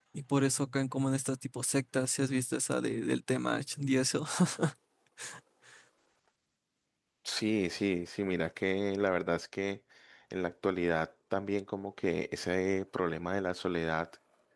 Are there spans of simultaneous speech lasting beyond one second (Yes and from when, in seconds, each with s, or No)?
No